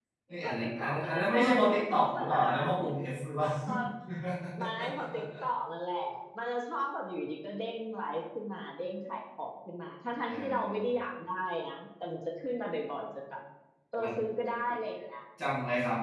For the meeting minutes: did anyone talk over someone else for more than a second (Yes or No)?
Yes